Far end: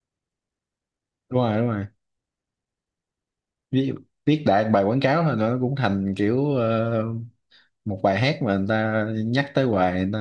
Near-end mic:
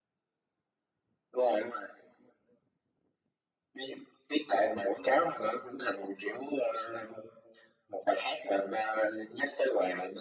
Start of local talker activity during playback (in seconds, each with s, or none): none